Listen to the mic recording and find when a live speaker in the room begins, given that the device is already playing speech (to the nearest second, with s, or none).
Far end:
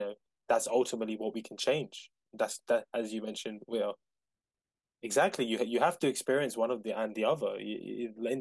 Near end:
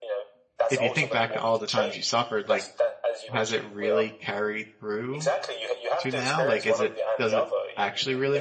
1 s